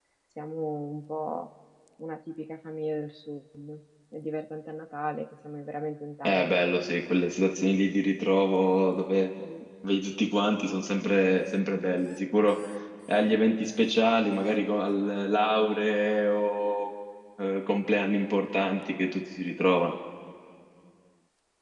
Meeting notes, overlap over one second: none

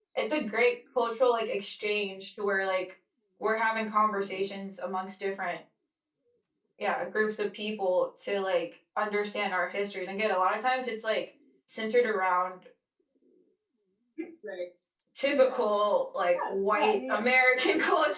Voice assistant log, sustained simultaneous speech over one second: present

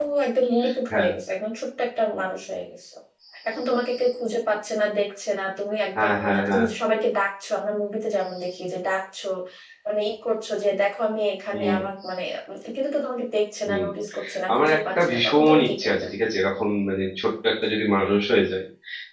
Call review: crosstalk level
present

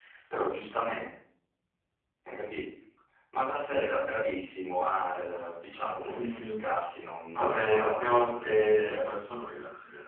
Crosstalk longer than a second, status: present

